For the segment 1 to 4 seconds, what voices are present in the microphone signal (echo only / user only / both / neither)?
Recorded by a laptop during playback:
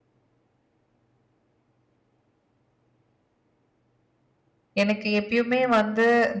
neither